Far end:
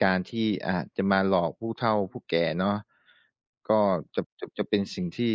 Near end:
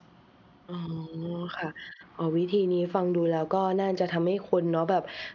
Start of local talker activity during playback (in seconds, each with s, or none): 0.7 s